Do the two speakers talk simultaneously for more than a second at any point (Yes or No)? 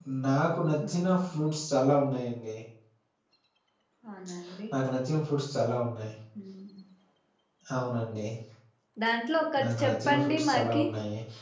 Yes